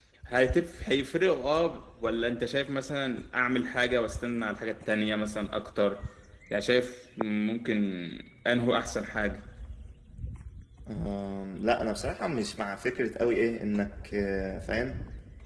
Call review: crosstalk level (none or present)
none